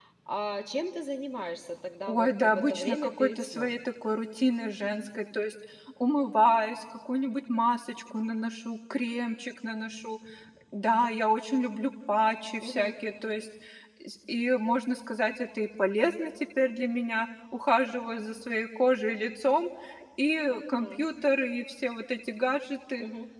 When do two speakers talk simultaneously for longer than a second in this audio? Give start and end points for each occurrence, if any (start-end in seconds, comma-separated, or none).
2.1-3.8